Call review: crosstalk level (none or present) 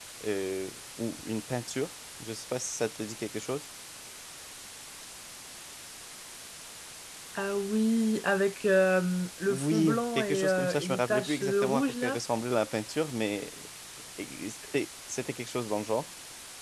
present